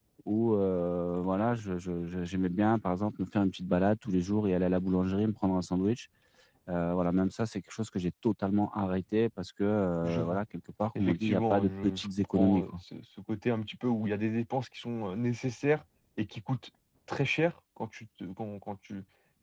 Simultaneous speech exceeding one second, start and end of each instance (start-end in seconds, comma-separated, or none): 11.0-12.8